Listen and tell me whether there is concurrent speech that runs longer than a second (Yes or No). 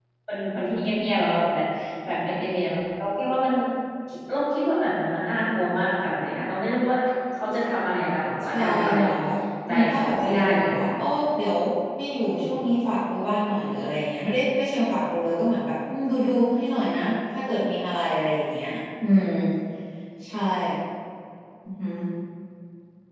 Yes